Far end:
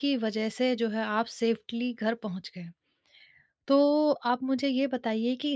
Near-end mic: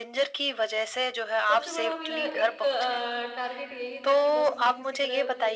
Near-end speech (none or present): present